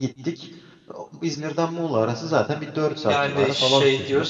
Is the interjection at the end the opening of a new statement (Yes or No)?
Yes